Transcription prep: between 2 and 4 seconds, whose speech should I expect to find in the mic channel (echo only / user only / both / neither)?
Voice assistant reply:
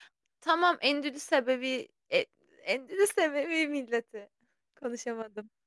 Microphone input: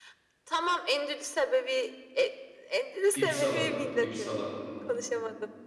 both